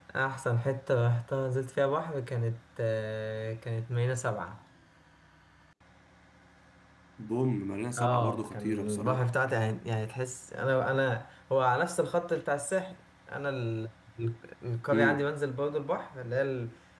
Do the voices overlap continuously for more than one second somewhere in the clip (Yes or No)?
Yes